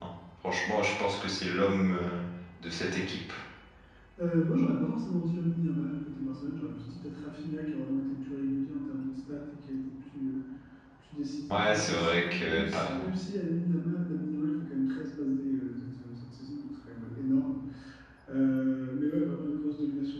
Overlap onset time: 11.5 s

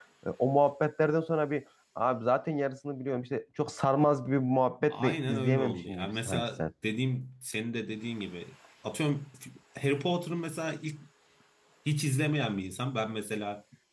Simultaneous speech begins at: 4.9 s

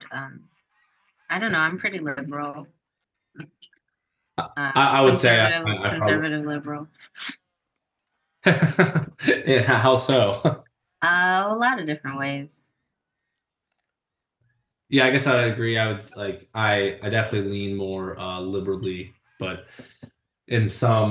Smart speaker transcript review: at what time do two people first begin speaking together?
4.8 s

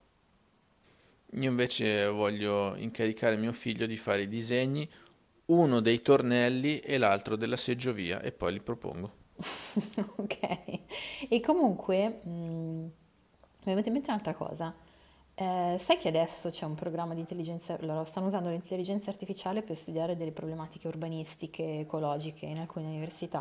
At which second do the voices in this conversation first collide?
none

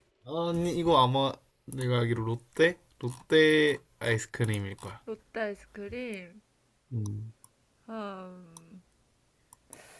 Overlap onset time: none

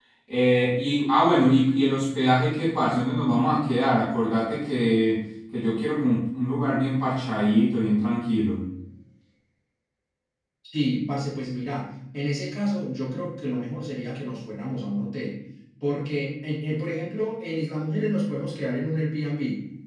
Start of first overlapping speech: none

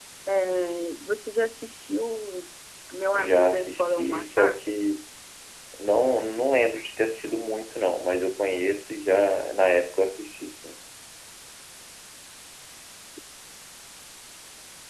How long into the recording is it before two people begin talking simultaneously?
3.1 s

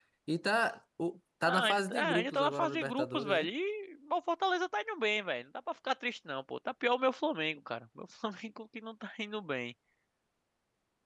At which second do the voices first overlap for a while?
1.4 s

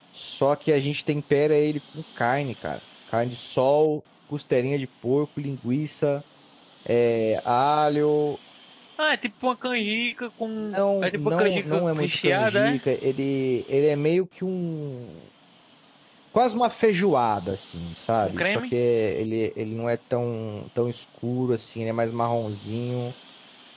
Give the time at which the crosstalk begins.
10.8 s

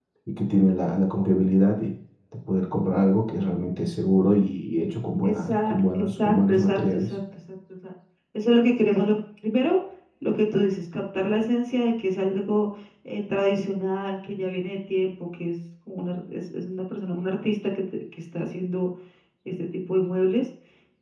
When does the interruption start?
5.2 s

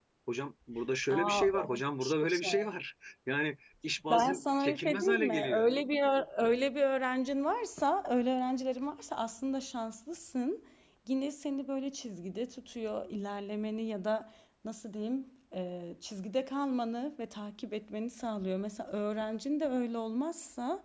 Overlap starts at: 1.1 s

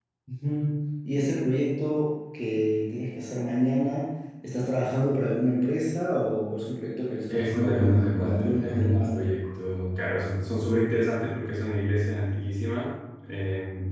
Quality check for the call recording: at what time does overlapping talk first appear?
7.3 s

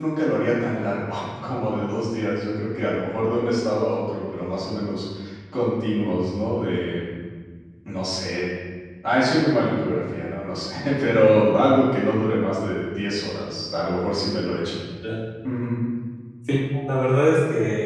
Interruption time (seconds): none

